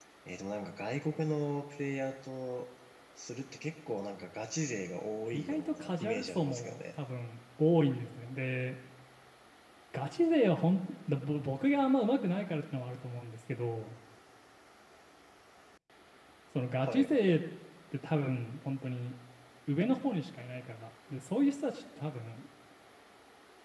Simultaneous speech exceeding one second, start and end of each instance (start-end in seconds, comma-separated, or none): 5.3-6.8